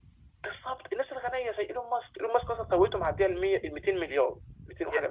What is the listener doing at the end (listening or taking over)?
taking over